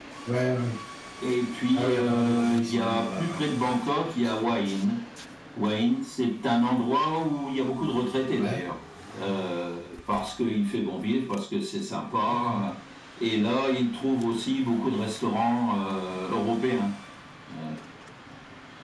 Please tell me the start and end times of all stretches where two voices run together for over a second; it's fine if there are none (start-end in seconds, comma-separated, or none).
1.7-3.4